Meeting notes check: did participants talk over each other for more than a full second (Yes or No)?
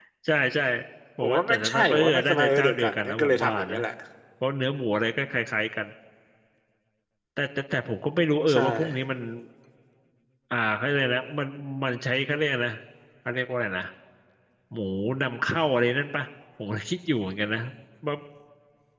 Yes